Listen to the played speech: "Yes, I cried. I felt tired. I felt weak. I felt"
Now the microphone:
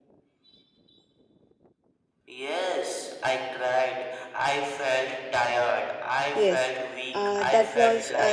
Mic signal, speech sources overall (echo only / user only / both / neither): both